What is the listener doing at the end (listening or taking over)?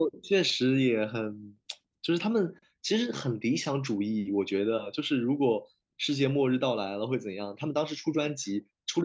listening